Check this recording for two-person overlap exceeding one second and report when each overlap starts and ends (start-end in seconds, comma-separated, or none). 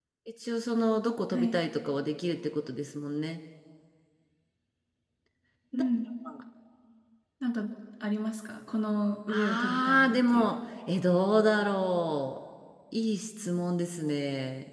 9.3-10.5